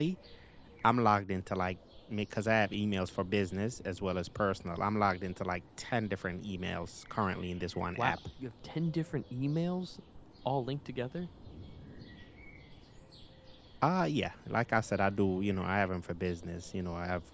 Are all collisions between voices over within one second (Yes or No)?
Yes